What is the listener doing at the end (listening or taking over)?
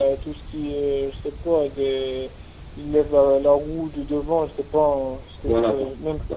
taking over